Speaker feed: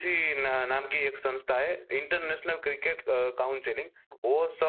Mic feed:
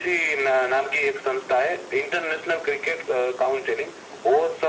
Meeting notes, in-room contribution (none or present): none